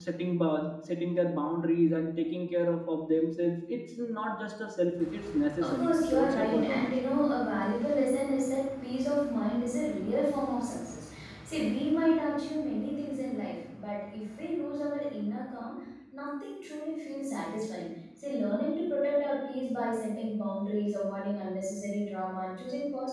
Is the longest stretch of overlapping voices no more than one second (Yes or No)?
No